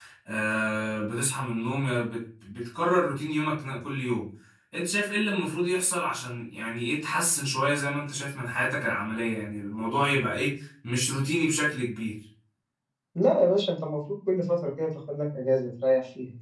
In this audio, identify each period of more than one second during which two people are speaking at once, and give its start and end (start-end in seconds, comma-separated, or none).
none